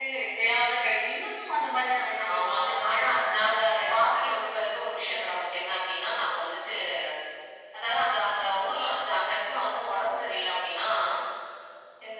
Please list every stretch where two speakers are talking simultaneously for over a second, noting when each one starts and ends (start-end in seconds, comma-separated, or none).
2.3-4.0